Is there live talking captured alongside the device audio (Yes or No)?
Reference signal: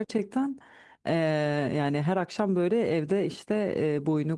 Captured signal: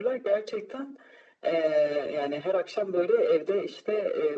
No